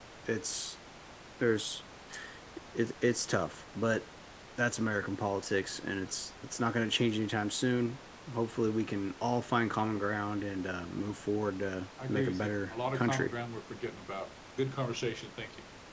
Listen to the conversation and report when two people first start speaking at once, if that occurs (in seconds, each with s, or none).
12.0 s